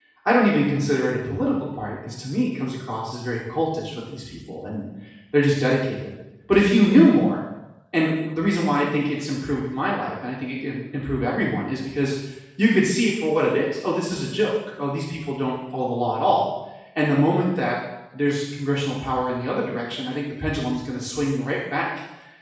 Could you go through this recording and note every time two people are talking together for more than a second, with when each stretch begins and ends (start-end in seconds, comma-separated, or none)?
none